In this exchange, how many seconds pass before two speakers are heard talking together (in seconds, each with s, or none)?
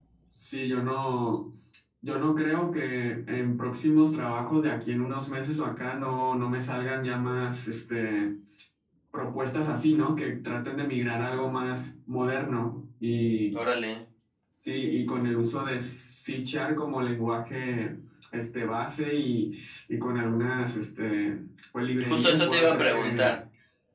22.0 s